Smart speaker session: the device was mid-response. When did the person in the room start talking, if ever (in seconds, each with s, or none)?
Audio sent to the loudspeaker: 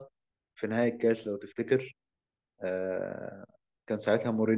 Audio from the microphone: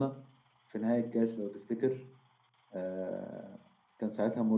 none